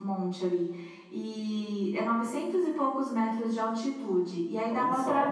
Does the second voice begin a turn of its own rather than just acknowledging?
No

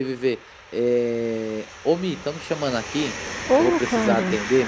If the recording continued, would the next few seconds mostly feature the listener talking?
No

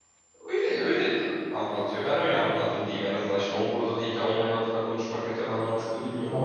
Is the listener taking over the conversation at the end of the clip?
Yes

